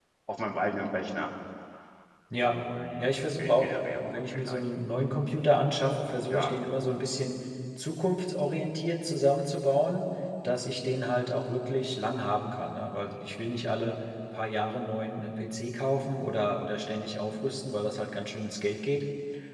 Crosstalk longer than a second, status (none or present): present